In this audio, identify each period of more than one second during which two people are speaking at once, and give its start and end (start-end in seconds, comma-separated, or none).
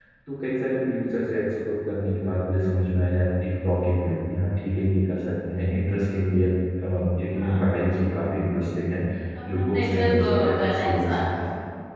9.4-11.3